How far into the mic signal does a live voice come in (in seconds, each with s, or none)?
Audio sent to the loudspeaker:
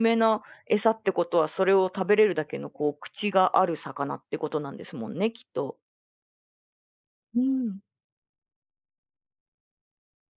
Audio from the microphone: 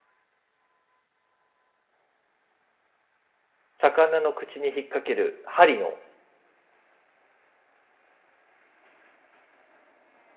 3.8 s